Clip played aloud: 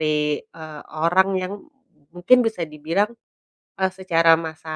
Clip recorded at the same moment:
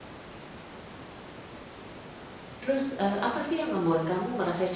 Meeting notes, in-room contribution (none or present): present